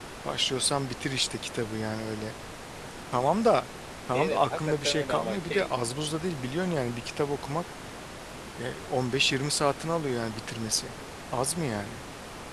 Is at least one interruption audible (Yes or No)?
Yes